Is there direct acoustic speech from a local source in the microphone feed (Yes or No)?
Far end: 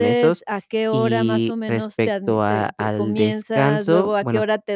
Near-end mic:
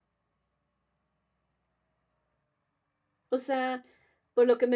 Yes